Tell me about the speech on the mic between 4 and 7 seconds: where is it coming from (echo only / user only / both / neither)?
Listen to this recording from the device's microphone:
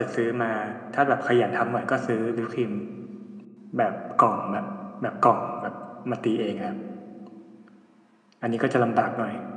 echo only